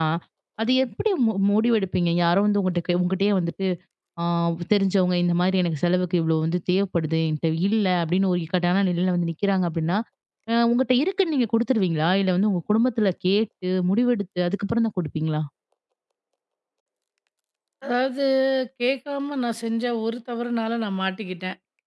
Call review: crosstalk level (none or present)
none